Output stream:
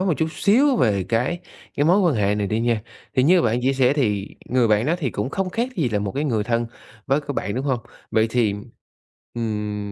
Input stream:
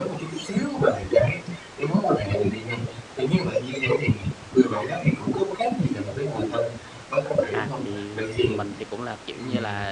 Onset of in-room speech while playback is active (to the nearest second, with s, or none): 7 s